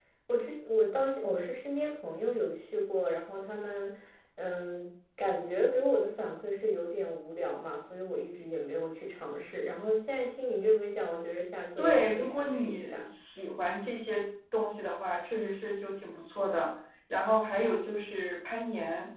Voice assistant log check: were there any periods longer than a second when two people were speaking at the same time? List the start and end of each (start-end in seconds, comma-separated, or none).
11.8-13.1